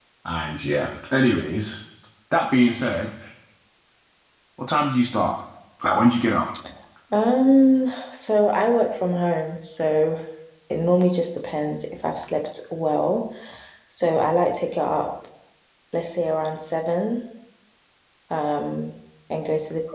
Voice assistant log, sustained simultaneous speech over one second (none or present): none